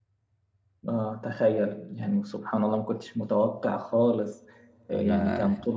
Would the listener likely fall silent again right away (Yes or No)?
Yes